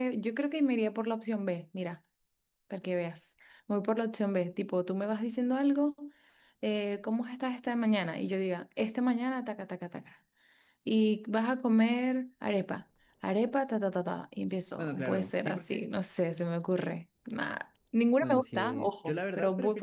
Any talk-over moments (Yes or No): Yes